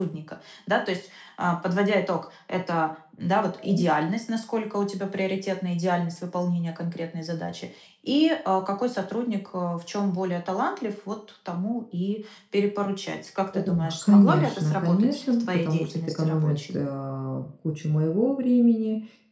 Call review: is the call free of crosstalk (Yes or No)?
No